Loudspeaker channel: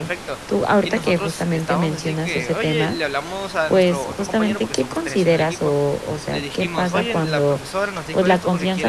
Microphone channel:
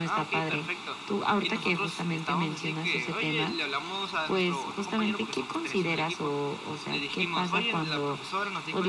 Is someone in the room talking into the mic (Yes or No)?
No